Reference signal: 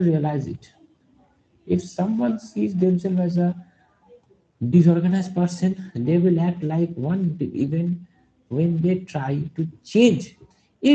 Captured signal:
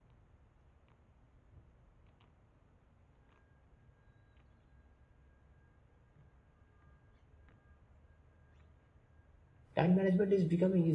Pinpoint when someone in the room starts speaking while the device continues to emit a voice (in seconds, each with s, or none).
9.8 s